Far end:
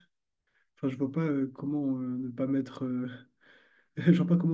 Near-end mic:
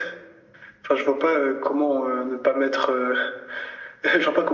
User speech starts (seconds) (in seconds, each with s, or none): none